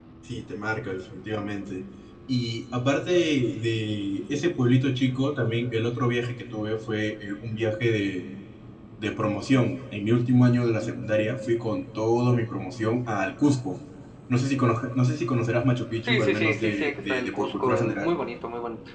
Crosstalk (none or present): present